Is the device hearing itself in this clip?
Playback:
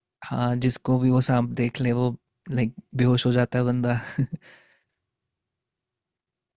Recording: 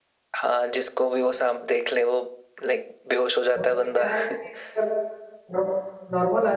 Yes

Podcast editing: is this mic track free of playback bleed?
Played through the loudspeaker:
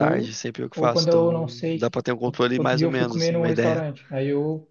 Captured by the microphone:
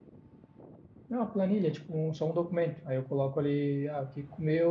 Yes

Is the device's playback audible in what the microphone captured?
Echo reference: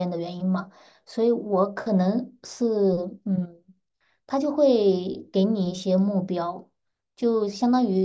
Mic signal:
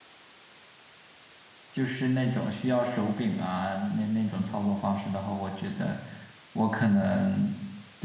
No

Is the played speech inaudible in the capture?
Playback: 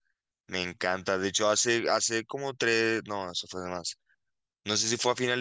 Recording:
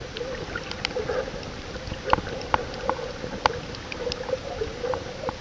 Yes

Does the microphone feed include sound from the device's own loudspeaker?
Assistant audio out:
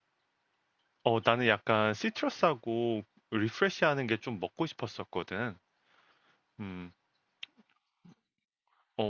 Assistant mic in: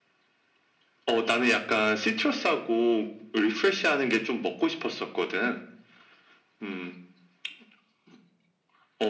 Yes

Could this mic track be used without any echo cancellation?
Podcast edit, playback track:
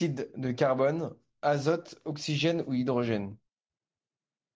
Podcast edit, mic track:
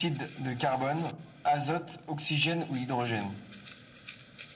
No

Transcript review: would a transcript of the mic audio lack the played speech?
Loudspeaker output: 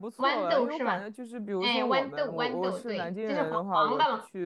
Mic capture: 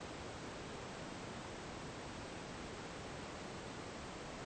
Yes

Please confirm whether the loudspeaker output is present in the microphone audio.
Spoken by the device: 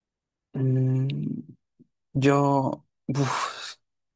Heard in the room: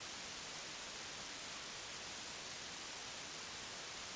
No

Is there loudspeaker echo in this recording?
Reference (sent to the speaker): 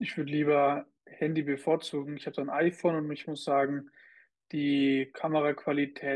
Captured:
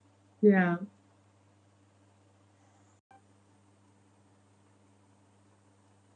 No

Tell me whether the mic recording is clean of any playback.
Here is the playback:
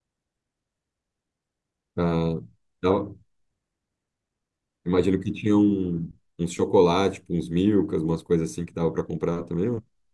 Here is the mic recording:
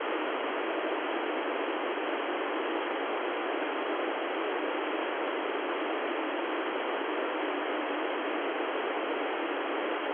Yes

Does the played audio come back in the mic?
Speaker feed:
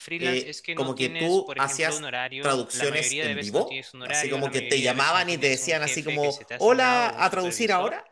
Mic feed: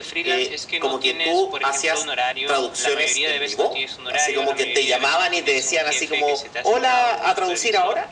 Yes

